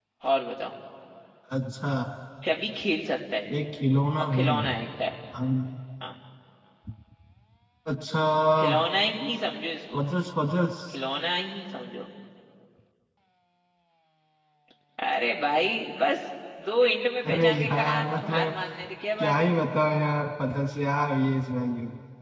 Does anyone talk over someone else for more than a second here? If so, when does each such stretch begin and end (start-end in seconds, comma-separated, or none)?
17.2-18.6